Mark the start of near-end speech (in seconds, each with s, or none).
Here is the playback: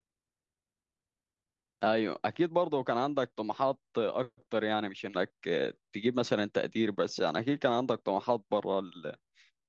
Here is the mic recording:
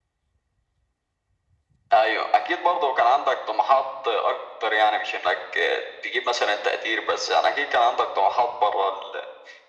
none